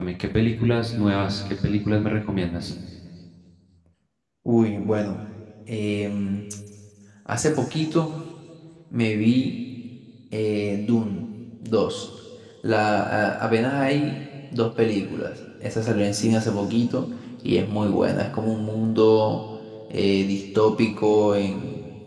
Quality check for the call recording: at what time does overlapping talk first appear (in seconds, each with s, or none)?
none